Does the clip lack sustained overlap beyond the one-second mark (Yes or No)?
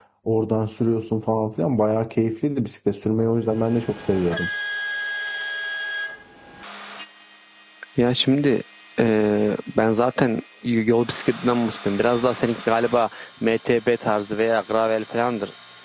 Yes